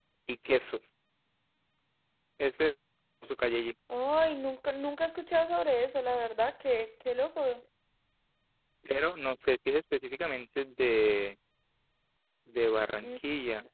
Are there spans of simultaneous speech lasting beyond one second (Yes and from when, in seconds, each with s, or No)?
No